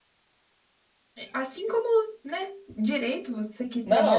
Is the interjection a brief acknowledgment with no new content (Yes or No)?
No